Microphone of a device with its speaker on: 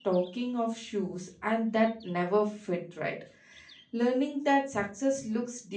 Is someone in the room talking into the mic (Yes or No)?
No